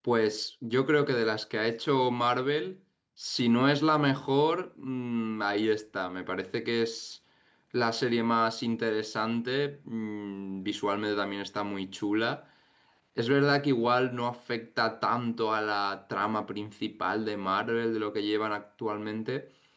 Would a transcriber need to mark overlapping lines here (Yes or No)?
No